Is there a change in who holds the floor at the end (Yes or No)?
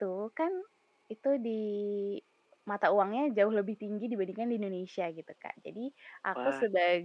No